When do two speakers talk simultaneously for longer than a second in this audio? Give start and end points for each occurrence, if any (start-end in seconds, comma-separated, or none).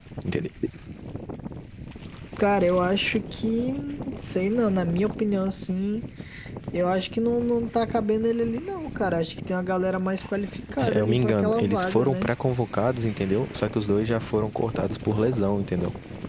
10.8-12.3